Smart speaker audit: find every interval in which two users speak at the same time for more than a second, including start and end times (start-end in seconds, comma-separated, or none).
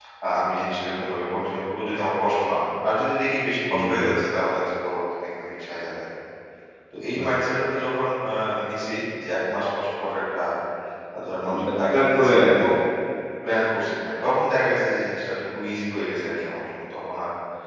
11.4-12.7